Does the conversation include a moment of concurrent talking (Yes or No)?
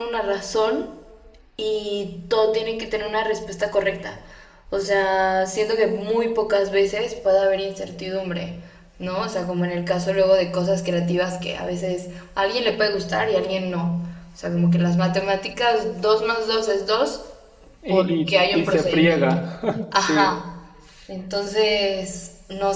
Yes